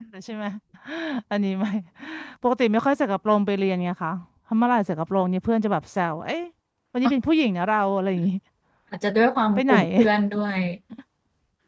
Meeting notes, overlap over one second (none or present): none